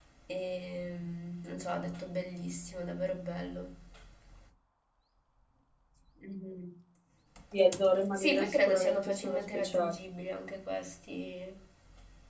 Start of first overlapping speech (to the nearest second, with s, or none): 8 s